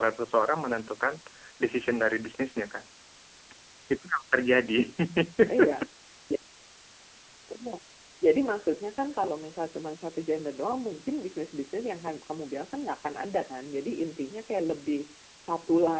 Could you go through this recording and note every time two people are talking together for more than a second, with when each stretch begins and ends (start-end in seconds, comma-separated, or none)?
none